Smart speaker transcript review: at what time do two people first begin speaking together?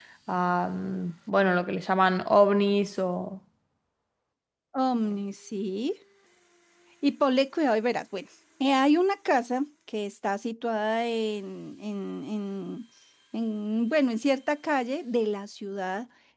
none

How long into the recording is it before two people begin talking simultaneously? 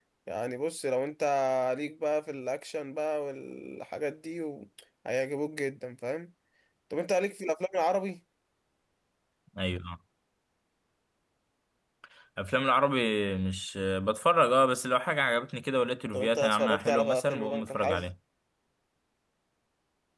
16.1 s

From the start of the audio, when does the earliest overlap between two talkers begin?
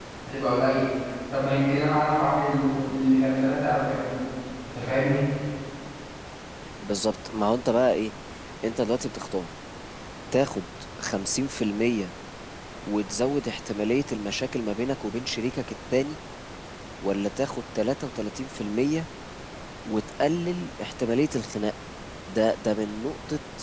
none

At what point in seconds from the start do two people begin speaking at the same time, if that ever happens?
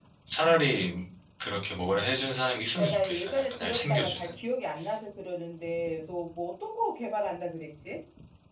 2.8 s

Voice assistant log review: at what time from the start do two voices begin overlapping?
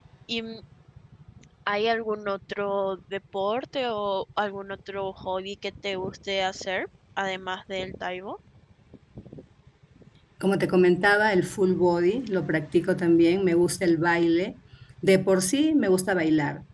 none

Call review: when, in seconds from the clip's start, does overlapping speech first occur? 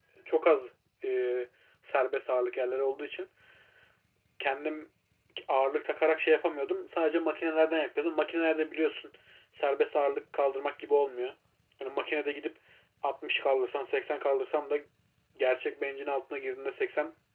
none

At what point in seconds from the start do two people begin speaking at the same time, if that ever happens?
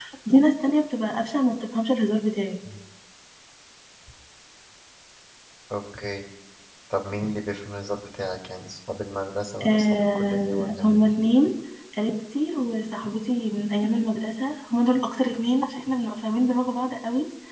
9.6 s

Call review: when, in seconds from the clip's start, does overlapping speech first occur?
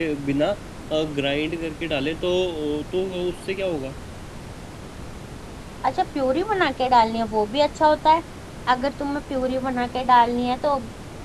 none

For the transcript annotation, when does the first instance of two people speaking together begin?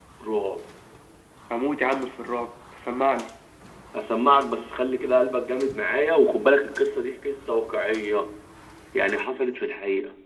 none

